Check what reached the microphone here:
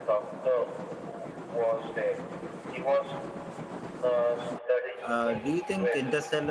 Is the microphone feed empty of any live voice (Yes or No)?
No